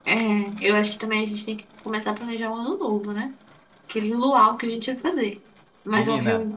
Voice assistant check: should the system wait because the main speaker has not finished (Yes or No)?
No